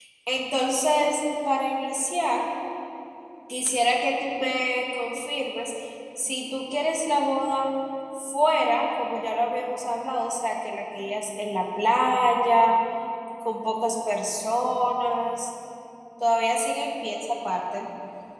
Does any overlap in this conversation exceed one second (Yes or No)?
No